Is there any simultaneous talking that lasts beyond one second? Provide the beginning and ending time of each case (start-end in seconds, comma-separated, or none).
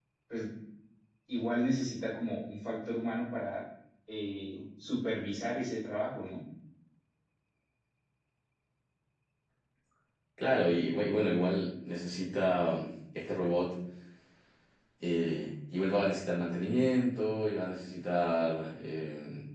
none